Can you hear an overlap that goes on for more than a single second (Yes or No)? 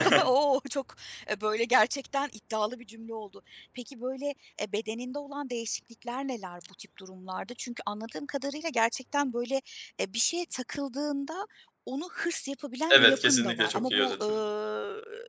Yes